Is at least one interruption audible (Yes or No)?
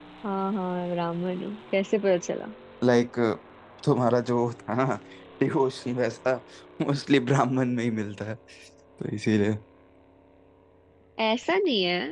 No